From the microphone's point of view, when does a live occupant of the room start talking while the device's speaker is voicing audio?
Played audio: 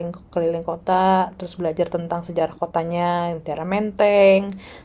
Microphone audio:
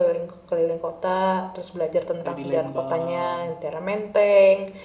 2.2 s

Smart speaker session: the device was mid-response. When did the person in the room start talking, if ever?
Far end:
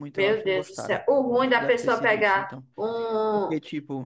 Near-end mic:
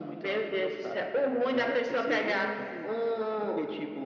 1.5 s

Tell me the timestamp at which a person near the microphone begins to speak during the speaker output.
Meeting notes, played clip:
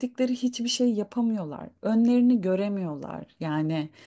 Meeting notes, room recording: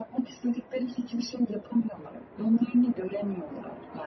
none

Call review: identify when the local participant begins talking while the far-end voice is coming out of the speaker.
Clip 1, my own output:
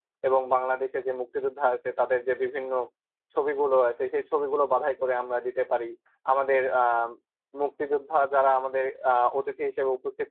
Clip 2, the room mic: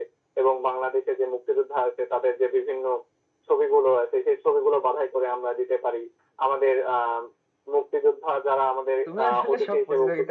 9.0 s

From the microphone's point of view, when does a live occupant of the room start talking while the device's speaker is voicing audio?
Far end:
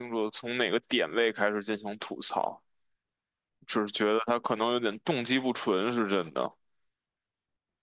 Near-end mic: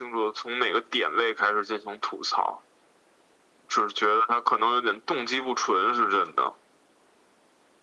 none

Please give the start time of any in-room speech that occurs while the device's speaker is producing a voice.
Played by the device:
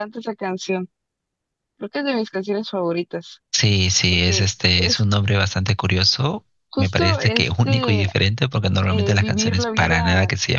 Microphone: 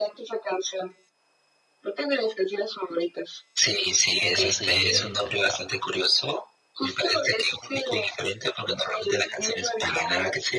4.2 s

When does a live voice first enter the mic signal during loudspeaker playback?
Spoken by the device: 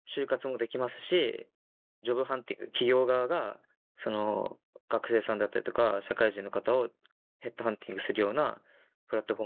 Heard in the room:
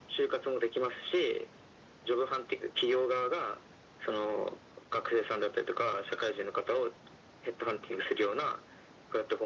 none

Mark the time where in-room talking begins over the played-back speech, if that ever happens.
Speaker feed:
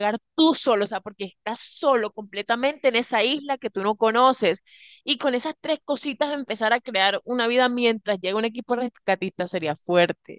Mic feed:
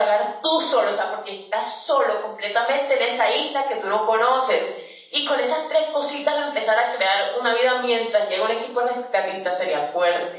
none

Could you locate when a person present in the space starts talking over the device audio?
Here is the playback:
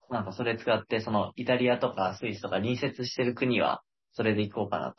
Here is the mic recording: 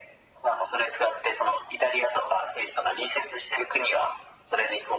none

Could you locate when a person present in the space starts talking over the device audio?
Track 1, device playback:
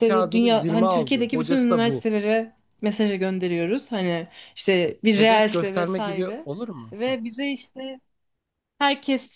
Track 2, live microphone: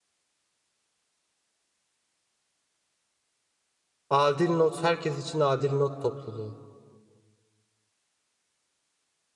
4.1 s

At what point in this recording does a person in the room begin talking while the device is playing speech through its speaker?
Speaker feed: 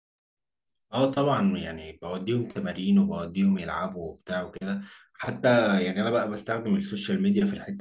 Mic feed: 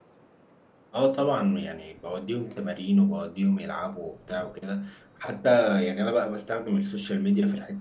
none

